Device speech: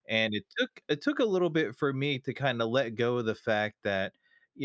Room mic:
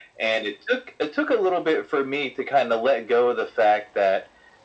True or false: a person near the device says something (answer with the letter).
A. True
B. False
B